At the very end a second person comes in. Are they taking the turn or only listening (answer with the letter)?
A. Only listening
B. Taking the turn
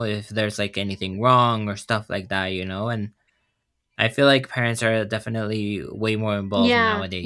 B